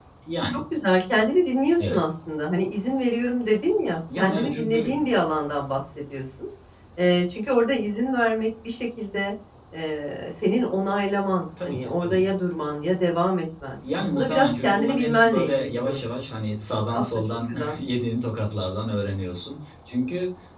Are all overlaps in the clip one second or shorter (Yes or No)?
No